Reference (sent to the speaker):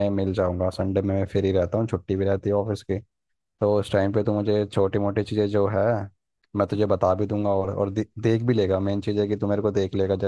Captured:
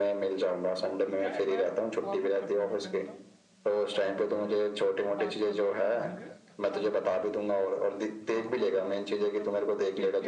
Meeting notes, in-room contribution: present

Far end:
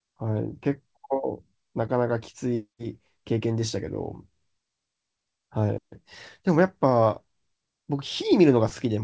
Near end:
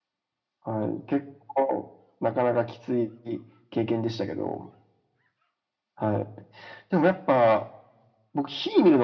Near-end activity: none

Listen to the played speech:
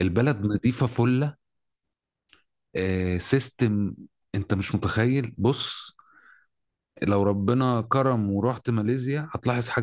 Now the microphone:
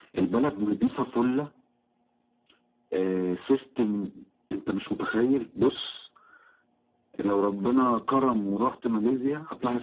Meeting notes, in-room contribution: none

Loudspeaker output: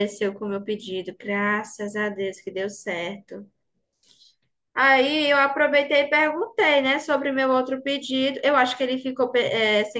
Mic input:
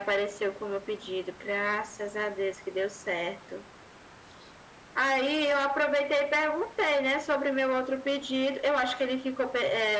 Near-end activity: none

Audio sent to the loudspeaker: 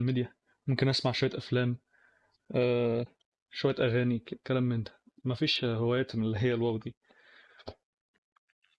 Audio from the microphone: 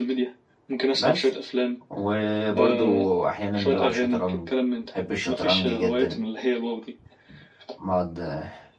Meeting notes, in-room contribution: present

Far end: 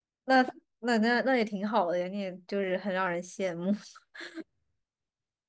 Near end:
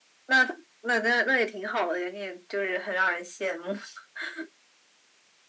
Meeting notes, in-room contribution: none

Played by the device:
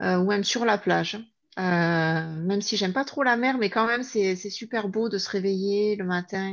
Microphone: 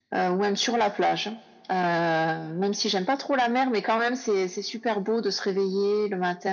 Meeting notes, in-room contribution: none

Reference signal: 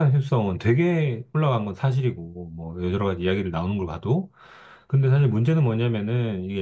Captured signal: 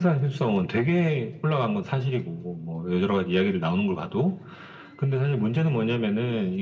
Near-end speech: none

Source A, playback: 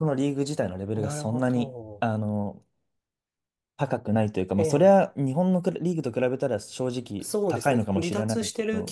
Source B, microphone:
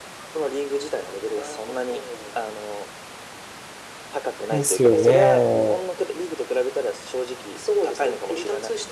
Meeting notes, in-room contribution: present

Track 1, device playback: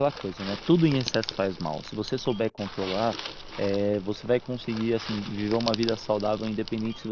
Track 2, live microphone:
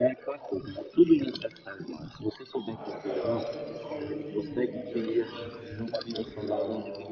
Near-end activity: present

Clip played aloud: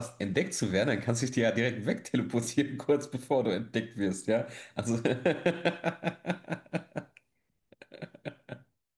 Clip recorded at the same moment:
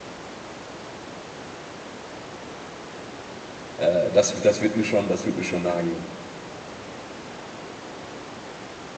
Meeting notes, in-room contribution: present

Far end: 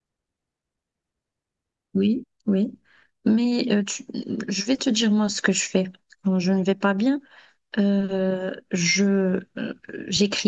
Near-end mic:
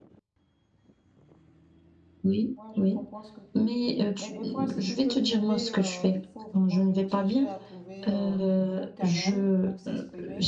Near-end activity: present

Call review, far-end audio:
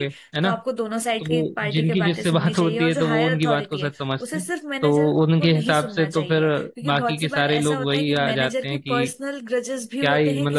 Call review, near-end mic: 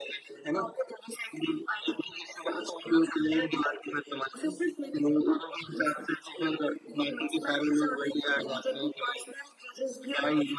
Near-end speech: none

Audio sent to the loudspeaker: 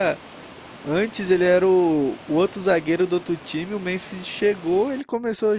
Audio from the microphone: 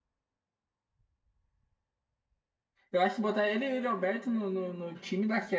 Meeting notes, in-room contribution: present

